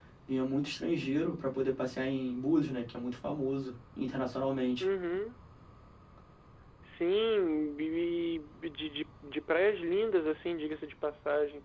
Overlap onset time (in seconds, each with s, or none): none